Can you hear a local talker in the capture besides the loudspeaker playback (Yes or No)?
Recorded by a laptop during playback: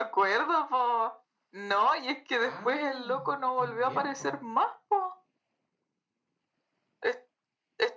Yes